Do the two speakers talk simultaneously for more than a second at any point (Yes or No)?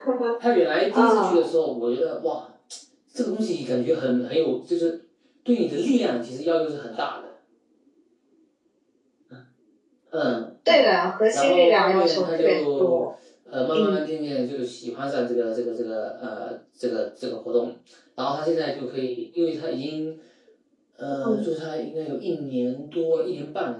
Yes